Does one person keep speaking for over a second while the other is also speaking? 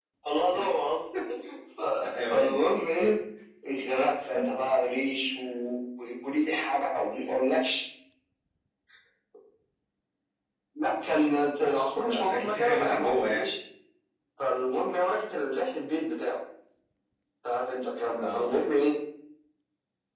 Yes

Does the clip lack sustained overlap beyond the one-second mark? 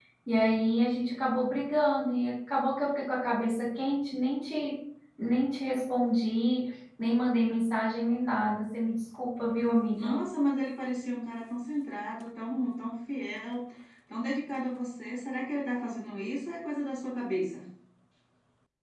Yes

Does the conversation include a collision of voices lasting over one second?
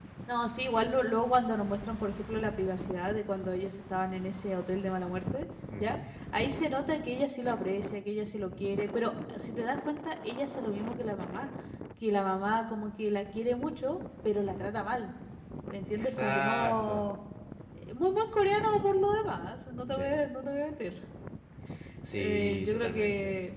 Yes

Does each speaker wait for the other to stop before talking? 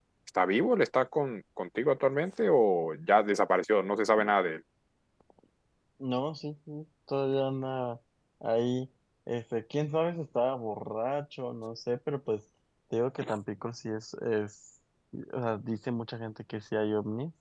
Yes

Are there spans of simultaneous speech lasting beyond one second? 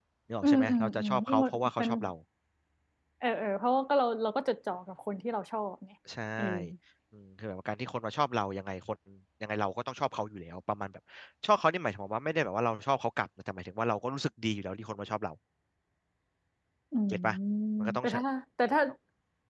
Yes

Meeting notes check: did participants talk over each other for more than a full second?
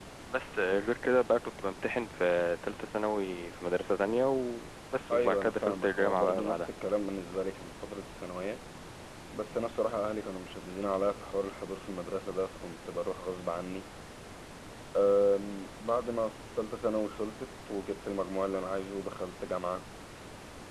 Yes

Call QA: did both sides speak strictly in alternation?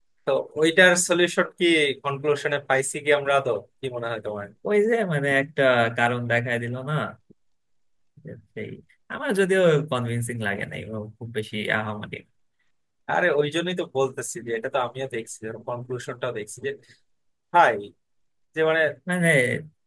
Yes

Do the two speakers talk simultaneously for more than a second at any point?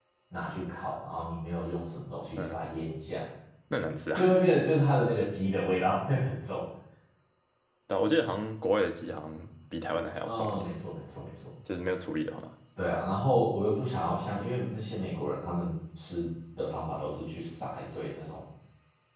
No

